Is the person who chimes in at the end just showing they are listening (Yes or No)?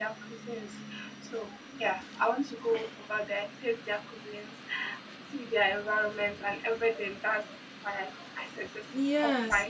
No